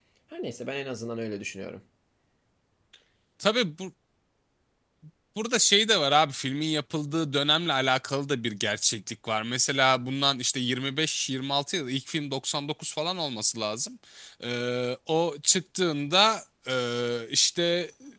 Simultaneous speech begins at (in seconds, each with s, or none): none